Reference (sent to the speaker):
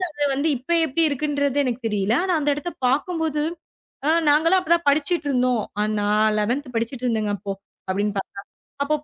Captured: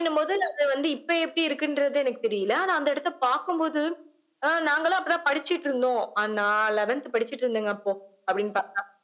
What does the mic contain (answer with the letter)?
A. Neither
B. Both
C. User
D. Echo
D